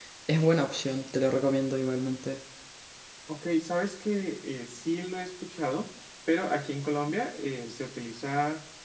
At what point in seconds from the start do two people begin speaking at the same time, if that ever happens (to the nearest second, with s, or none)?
none